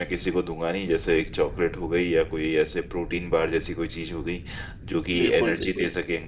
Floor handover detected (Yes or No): No